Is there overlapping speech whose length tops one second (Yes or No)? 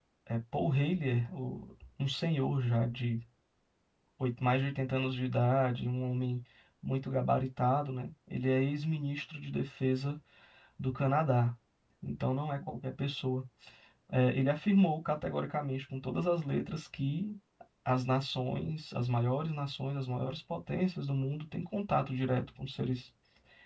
No